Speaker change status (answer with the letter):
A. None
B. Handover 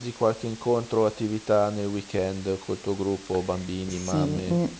B